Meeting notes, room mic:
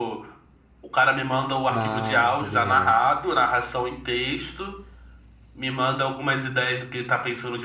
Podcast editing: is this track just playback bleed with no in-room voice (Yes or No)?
No